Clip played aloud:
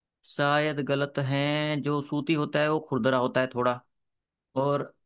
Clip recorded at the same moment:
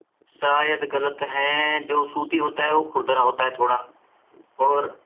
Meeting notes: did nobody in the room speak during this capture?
Yes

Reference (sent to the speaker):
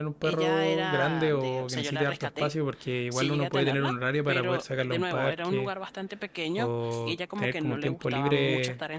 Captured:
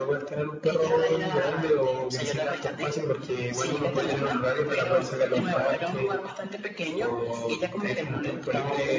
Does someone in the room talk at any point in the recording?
No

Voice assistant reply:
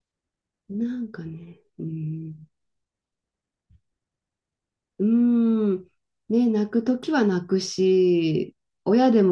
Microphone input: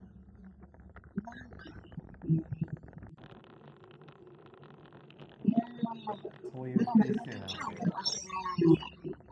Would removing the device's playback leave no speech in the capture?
No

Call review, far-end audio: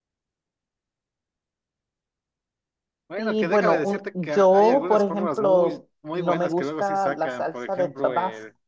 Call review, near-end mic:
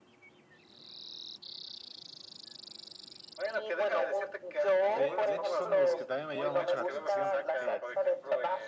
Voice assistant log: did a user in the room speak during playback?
Yes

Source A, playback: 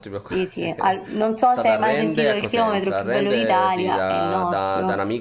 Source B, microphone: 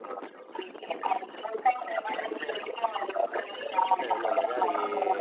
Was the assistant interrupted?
Yes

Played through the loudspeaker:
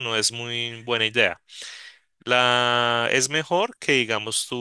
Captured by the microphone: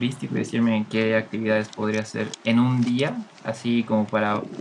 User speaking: Yes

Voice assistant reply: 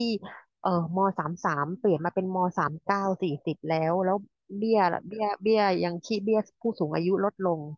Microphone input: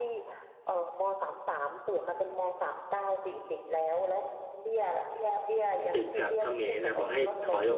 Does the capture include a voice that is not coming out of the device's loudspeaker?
Yes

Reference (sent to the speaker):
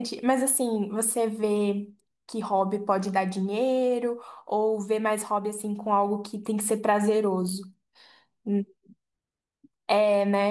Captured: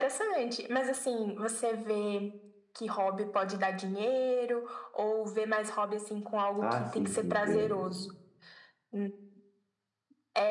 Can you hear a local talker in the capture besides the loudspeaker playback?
Yes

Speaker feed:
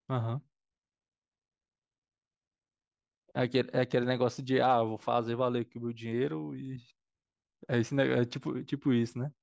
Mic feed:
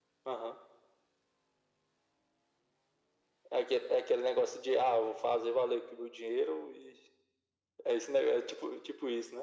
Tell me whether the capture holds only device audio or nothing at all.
Yes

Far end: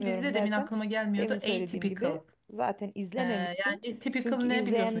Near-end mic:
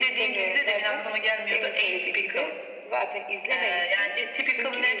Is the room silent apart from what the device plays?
Yes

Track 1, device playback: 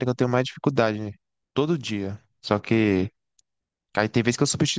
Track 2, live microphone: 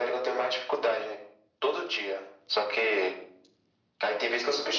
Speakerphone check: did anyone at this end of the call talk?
No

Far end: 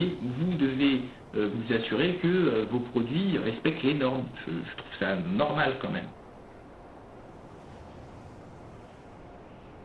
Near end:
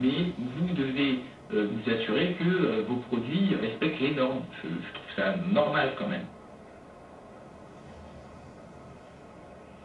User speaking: No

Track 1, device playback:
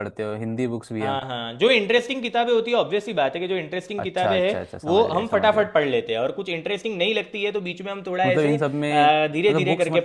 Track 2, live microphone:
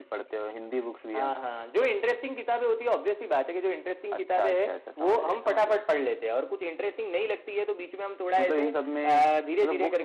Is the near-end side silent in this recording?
Yes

